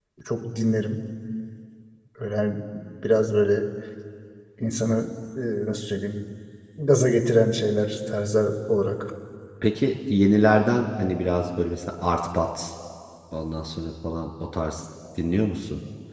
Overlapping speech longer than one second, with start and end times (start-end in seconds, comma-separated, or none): none